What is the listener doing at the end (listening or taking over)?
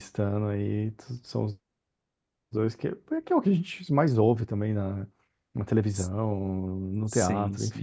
listening